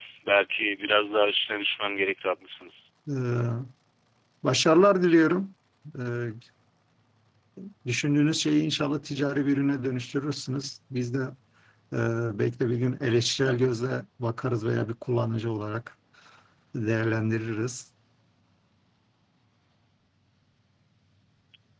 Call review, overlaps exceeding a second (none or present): none